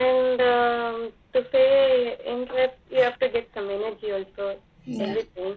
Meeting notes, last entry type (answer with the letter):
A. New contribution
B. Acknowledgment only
B